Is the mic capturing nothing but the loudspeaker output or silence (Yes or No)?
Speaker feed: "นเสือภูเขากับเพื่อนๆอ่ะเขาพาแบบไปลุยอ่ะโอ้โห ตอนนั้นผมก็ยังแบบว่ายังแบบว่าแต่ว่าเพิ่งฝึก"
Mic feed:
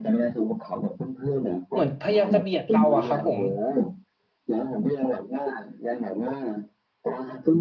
No